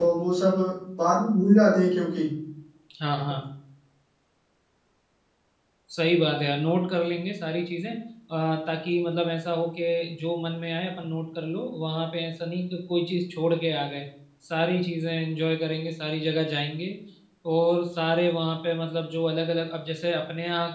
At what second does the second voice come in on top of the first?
none

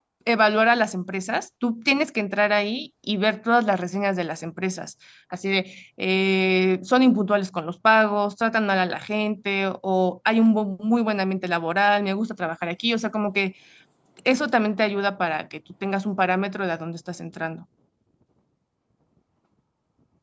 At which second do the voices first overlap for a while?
none

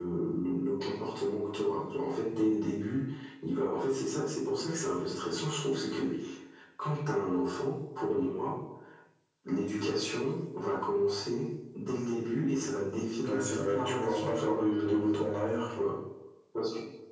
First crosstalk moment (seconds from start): 13.2 s

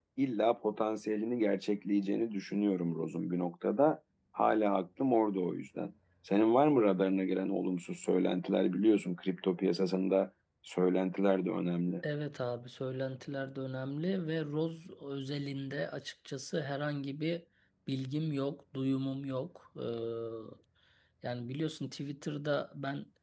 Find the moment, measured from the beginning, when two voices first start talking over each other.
none

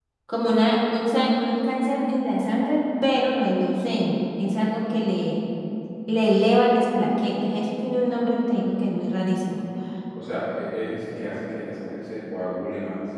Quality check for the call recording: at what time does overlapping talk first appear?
none

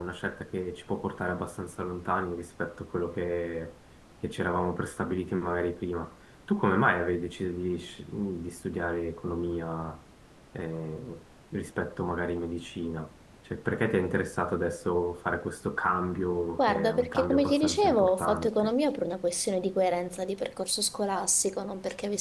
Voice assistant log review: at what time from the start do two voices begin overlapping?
16.6 s

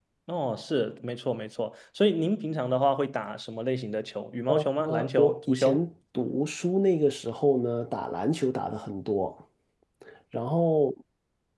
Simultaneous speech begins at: 4.5 s

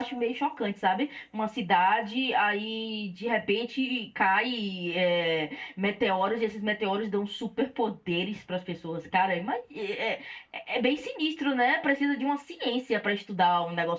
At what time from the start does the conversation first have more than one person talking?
none

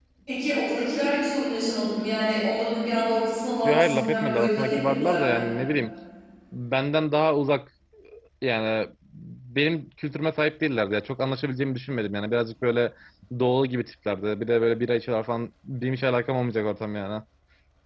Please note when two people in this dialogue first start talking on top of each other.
3.6 s

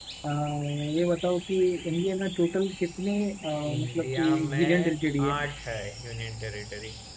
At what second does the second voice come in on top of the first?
3.6 s

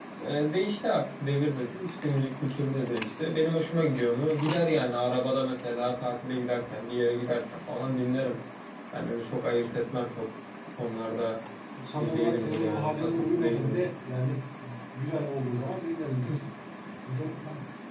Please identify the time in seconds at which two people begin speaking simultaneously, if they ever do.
11.9 s

